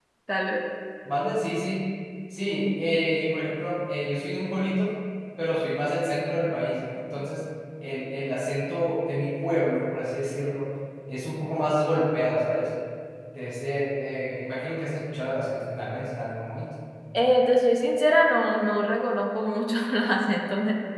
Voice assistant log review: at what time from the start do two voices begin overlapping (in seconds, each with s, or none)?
none